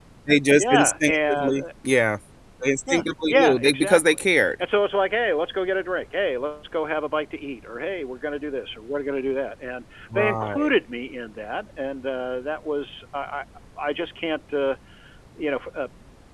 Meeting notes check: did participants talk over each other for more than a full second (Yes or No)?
Yes